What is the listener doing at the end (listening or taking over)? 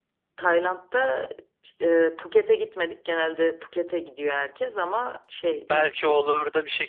taking over